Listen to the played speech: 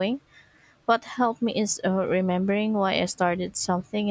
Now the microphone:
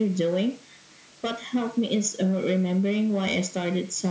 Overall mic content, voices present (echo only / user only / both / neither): echo only